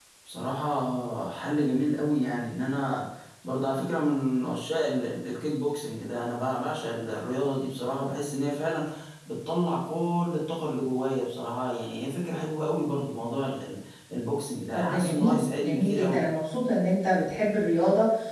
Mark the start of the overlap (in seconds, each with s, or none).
14.7 s